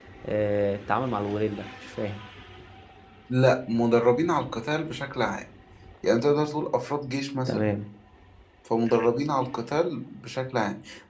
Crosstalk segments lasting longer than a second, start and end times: none

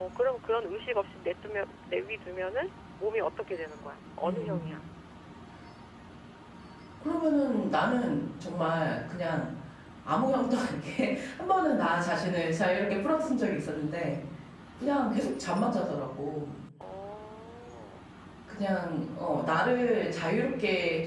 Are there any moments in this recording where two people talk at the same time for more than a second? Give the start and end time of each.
none

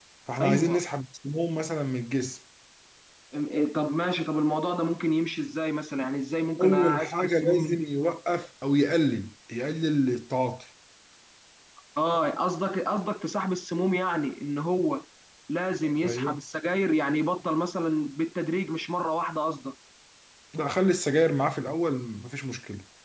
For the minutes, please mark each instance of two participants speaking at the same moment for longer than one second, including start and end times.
6.6-7.9

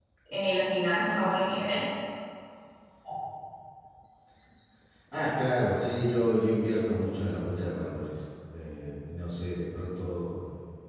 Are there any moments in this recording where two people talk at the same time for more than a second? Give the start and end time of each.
none

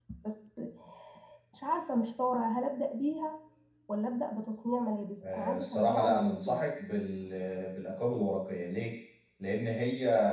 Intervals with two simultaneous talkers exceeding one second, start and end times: 5.2-6.6

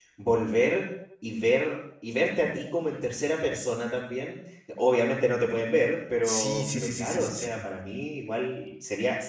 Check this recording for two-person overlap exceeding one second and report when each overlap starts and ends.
6.2-7.7

